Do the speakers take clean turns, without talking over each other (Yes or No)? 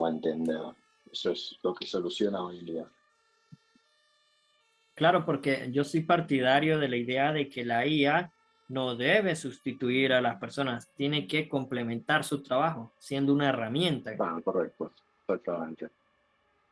Yes